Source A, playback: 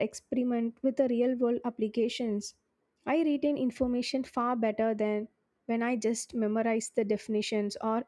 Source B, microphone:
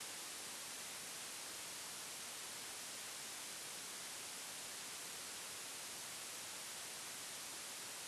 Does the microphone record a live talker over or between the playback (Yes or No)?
No